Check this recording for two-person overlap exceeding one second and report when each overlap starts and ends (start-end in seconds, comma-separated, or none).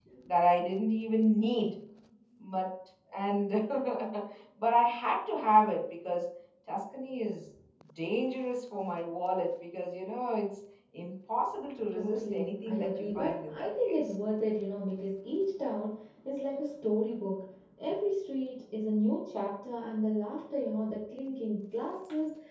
11.9-14.2